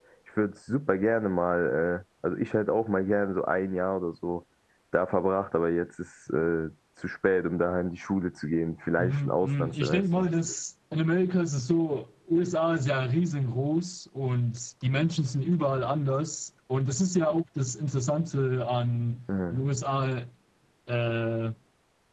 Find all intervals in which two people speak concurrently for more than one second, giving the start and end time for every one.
9.0-10.3

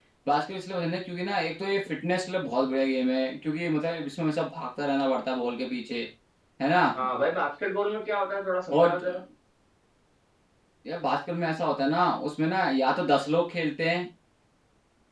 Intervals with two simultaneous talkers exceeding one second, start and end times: none

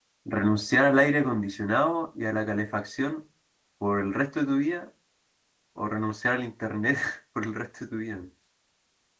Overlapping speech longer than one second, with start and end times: none

